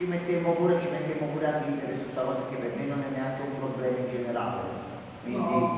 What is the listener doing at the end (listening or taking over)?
listening